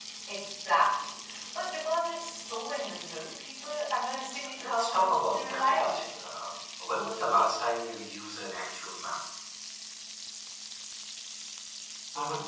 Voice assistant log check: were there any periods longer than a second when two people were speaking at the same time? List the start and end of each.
4.6-6.0

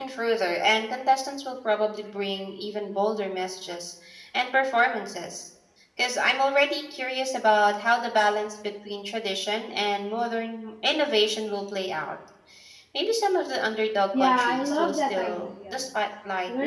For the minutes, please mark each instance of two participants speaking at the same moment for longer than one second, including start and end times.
14.2-15.8

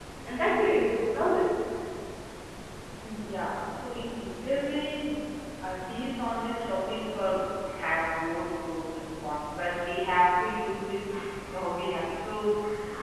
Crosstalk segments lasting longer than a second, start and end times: none

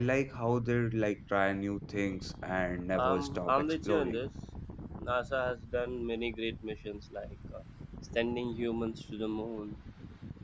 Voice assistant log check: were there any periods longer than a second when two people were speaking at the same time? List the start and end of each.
2.9-4.2

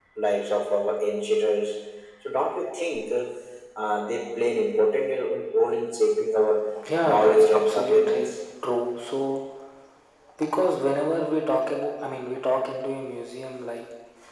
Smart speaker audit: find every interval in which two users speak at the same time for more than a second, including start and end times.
7.0-8.3

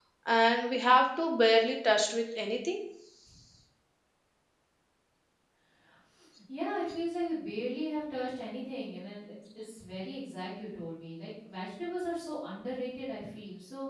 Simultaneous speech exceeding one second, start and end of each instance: none

